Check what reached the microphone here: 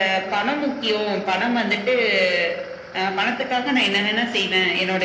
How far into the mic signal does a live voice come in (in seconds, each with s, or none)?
none